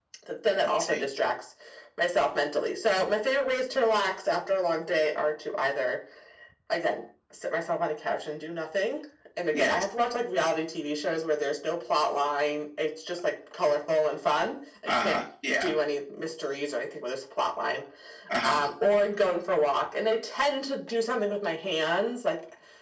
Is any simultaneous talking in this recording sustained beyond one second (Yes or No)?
No